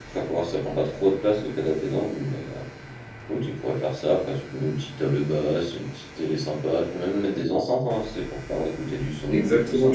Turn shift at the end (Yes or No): Yes